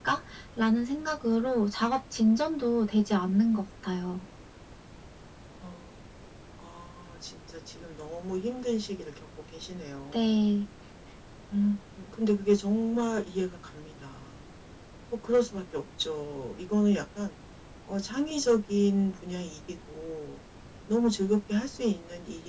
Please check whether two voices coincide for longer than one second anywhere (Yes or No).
No